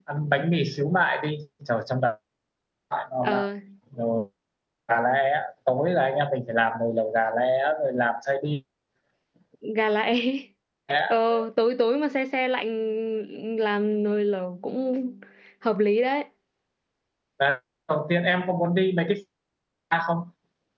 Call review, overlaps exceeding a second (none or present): none